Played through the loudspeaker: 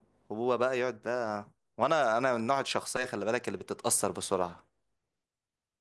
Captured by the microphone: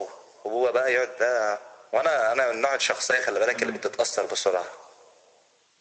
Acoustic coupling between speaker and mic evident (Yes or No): Yes